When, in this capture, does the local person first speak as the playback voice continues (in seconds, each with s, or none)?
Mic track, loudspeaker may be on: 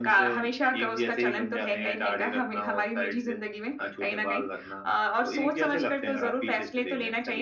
none